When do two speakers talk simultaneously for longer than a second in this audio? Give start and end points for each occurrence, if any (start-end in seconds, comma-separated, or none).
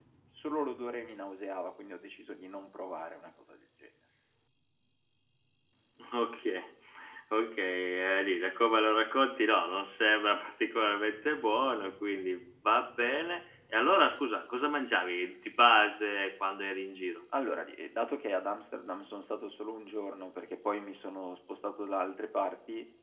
none